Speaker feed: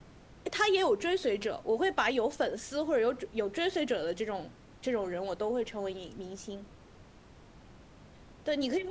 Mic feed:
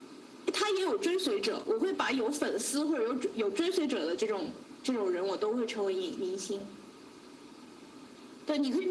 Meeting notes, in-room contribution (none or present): none